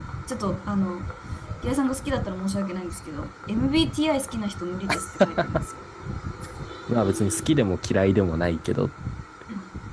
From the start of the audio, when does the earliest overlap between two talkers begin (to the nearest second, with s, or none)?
none